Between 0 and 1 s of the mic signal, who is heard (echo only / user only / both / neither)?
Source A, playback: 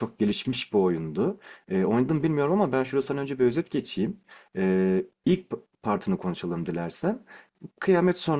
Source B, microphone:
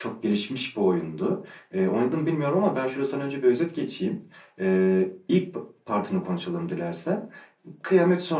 echo only